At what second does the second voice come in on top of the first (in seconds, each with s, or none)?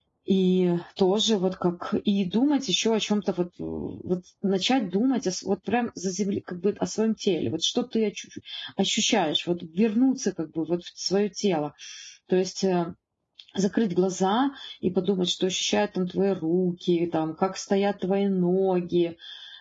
none